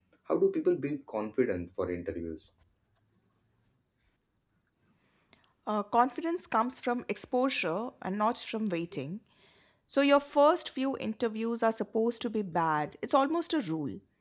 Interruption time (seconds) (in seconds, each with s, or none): none